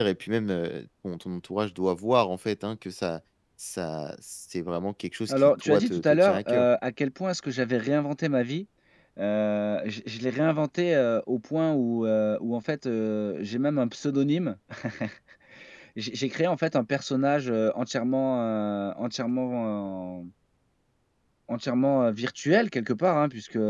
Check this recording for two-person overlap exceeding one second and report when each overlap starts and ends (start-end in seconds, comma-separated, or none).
5.3-6.7